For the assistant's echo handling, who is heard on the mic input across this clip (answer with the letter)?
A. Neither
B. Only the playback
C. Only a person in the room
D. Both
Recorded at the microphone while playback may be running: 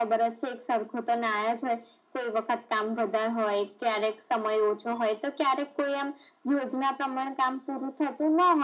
B